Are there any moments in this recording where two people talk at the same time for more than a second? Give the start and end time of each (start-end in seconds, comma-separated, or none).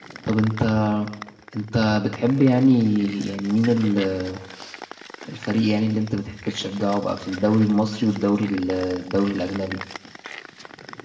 none